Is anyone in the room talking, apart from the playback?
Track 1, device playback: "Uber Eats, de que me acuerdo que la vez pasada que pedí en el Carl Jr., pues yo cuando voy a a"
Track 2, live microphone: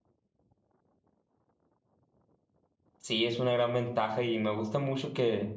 Yes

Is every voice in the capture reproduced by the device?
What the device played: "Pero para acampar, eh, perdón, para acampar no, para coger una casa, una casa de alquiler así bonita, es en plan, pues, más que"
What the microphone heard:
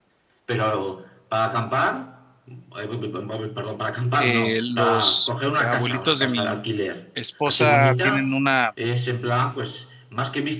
No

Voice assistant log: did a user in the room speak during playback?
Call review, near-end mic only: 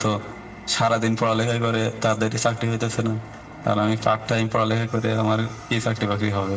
No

